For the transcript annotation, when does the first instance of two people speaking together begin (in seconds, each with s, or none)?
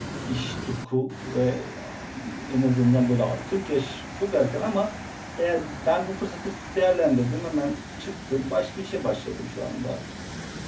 none